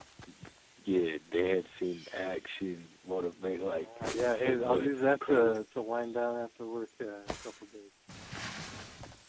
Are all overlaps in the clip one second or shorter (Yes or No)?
No